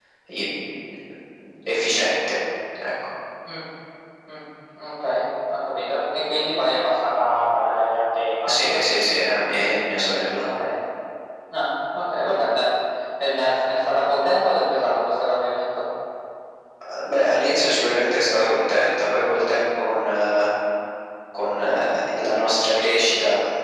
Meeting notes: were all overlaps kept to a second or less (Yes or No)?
Yes